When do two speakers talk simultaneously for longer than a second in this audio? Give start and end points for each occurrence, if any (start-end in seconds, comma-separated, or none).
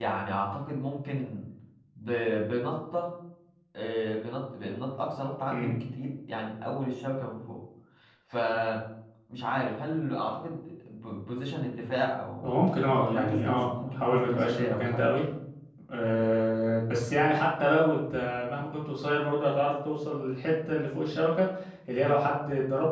13.0-15.0